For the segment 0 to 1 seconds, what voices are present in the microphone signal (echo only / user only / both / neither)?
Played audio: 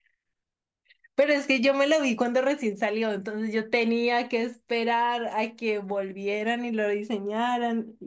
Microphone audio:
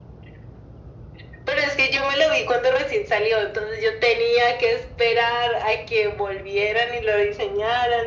neither